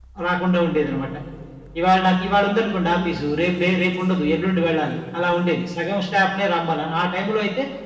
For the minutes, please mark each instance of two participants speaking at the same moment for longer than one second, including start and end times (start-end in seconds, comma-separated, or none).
none